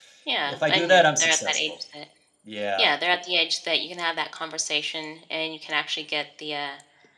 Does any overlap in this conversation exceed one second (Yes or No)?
Yes